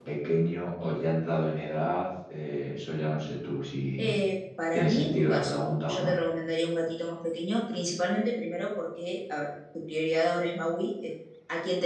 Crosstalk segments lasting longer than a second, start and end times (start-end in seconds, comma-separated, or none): 4.7-6.1